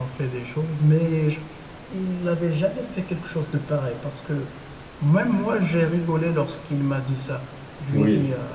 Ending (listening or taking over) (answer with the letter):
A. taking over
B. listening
B